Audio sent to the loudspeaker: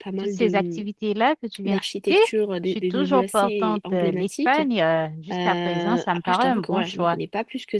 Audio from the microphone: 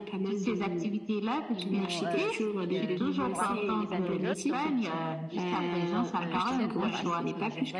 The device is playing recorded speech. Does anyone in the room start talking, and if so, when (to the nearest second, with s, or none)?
2 s